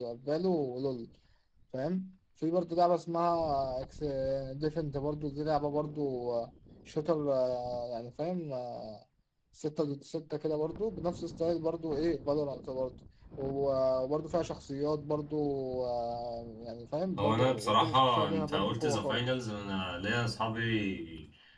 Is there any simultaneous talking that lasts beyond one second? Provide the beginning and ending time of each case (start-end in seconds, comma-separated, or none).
17.2-19.2